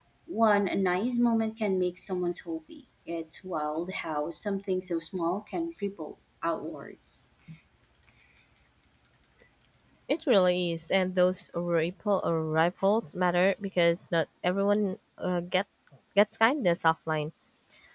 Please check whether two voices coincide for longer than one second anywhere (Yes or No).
No